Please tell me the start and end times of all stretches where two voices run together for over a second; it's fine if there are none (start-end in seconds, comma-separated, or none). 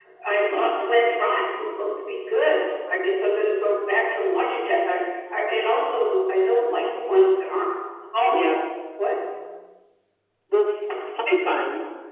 none